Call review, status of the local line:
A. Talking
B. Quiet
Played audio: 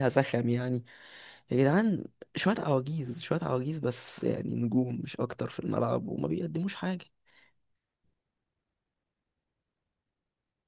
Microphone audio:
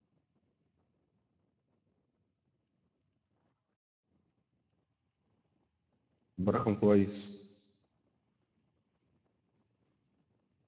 A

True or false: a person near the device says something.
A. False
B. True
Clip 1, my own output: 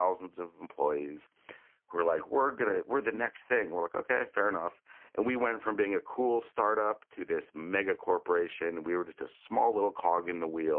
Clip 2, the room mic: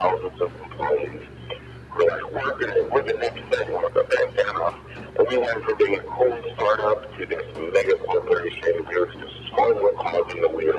A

